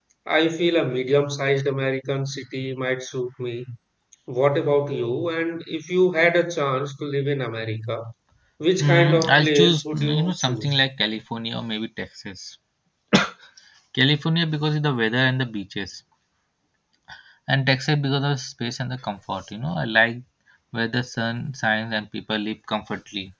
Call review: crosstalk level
present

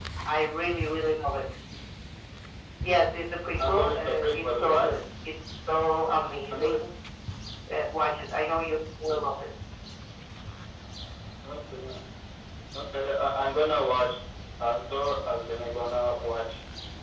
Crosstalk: present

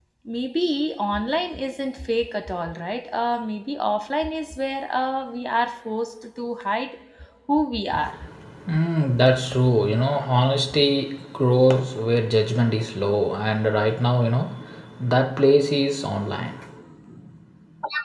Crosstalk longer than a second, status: none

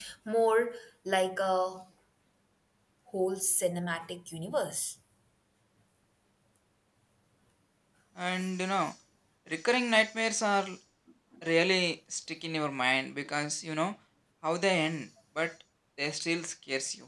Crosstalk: none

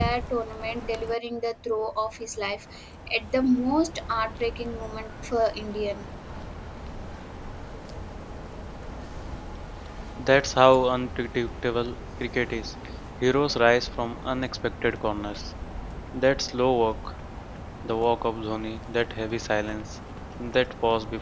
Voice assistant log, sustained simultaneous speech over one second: none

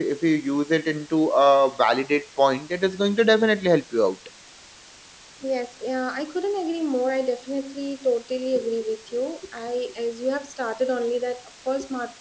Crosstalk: none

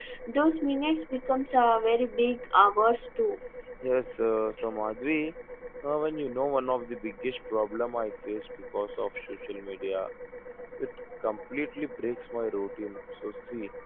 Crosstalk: none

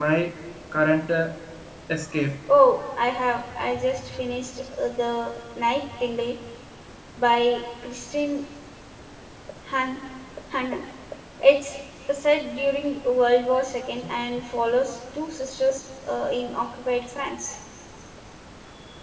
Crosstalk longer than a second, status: none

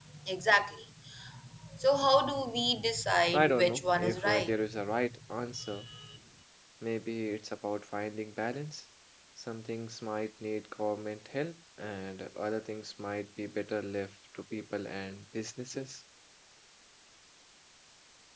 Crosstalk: present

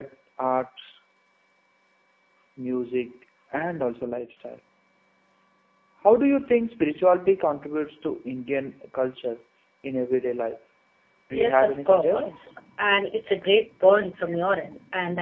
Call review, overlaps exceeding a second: present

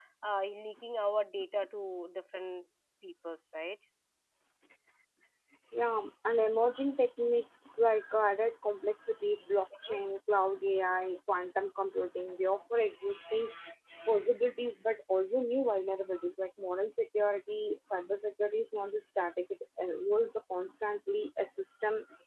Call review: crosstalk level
none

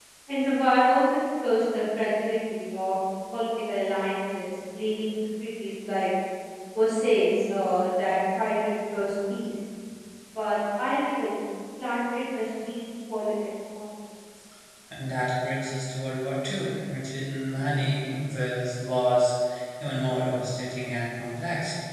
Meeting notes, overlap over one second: none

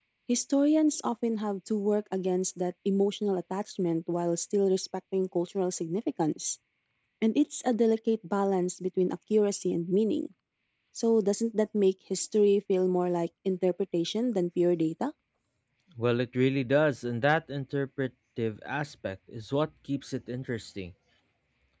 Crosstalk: none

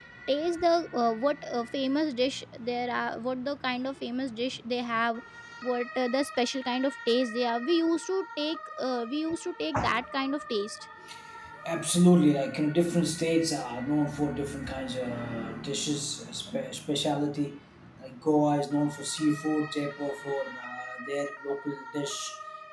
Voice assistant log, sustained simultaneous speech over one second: none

